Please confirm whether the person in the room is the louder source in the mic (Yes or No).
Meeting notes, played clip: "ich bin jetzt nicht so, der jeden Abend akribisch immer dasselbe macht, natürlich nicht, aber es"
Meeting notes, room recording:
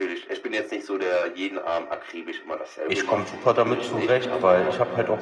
Yes